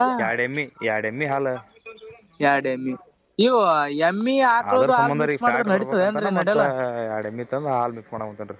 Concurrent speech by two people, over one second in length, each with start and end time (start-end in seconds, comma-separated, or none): 4.7-6.6